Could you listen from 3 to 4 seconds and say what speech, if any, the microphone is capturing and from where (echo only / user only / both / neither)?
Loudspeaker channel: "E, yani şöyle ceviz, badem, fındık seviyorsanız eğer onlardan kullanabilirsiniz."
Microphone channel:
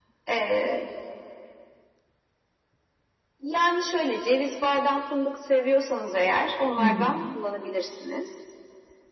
echo only